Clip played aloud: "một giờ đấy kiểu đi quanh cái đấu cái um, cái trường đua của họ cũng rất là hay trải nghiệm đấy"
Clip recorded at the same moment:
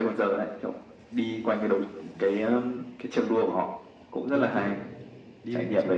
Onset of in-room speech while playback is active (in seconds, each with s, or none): 4.3 s